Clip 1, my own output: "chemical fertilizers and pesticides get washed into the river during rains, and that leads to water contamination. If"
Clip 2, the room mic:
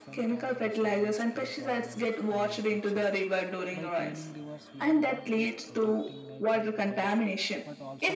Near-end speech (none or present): present